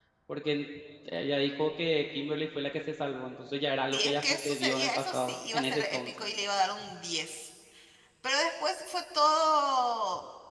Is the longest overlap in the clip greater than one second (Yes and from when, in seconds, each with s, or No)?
Yes, from 3.9 s